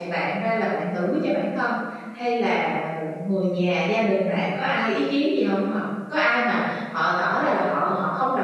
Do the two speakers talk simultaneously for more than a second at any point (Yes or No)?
No